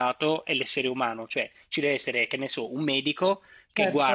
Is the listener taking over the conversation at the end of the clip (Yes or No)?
No